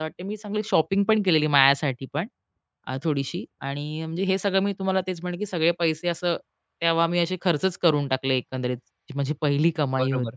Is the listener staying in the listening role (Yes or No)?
No